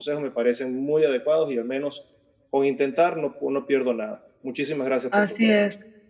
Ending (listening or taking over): taking over